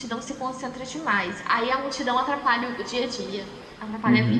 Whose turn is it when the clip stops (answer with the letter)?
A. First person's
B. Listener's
B